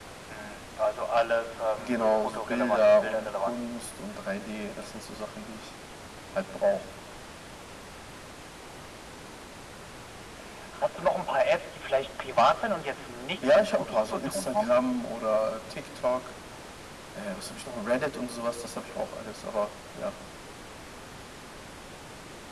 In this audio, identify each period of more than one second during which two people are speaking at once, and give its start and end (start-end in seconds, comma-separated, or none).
1.8-3.6, 13.4-14.7